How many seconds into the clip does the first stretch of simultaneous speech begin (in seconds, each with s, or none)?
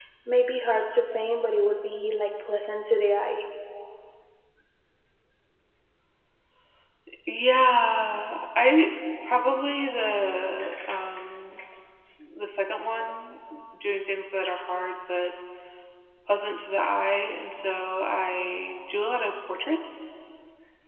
none